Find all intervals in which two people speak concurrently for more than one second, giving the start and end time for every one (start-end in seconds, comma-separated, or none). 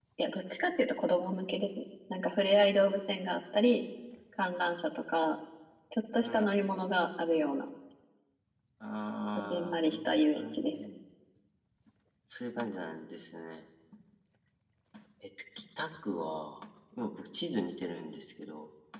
9.5-10.8